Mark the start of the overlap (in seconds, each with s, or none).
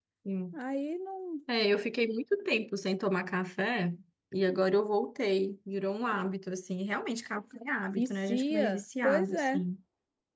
8.0 s